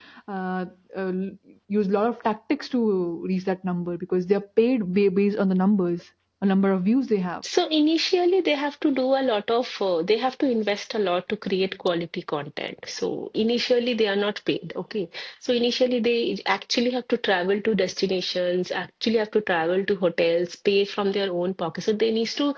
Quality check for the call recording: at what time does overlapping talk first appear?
none

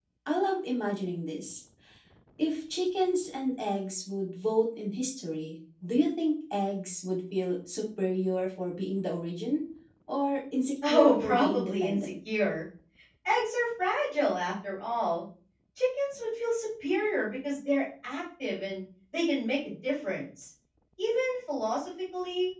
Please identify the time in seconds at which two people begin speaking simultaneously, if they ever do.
10.9 s

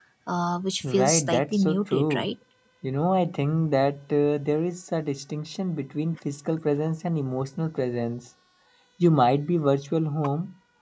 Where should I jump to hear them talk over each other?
0.9 s

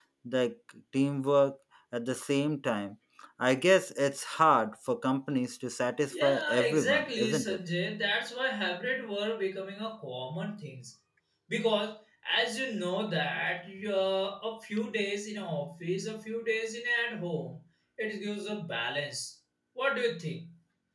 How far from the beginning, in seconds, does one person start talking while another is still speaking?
6.1 s

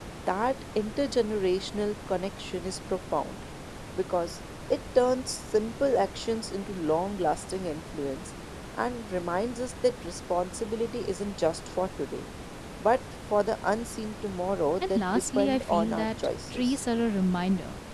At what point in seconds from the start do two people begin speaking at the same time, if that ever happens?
14.8 s

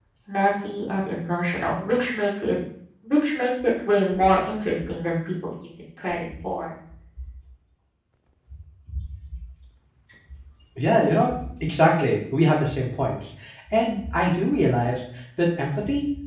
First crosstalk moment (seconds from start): none

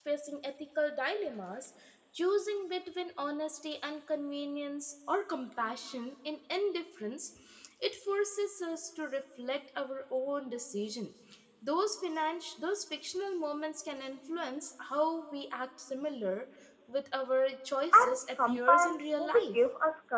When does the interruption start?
17.9 s

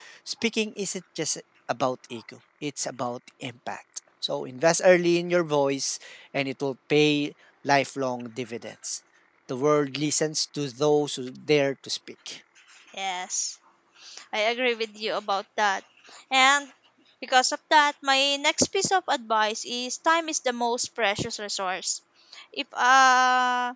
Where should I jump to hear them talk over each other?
none

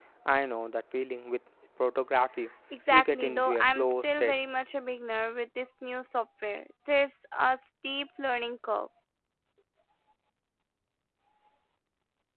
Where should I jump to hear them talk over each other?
2.9 s

